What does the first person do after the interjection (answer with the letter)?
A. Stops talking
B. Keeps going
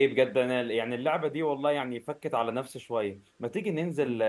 B